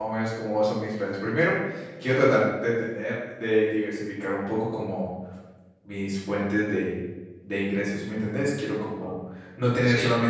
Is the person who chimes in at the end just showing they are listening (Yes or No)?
Yes